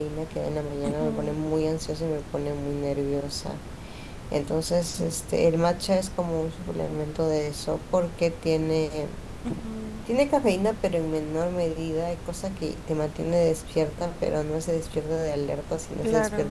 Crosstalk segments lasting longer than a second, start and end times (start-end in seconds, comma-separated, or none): none